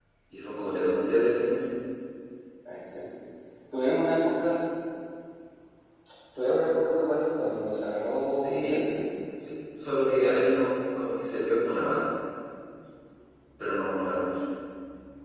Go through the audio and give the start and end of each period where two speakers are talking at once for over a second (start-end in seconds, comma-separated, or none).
7.7-9.1